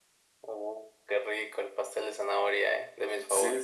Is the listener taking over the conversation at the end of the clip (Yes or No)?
Yes